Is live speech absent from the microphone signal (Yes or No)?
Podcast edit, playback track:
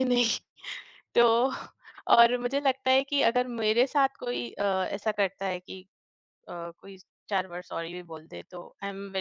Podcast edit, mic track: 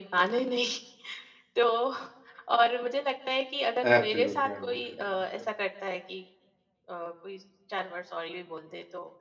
No